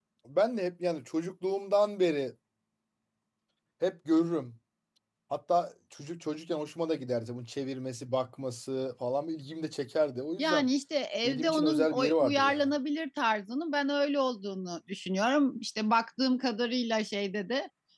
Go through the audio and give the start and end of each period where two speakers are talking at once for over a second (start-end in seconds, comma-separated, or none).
11.2-12.7